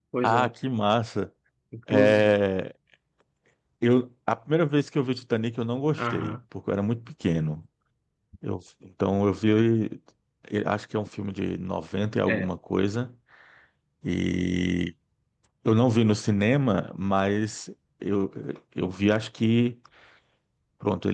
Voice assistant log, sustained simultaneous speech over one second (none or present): none